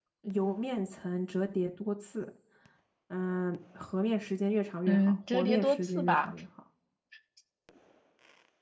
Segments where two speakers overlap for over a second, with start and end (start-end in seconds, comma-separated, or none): 4.9-6.3